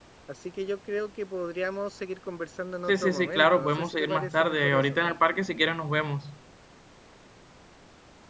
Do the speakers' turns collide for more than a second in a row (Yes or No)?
Yes